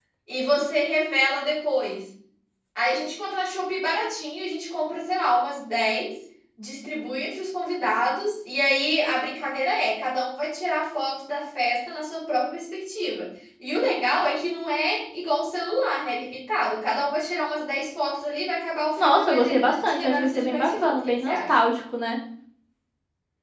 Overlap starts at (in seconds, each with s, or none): 19.0 s